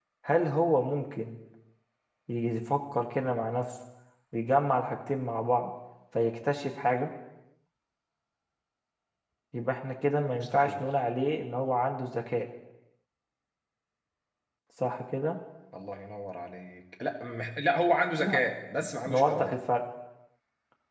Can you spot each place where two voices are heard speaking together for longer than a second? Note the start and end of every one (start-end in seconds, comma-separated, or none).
none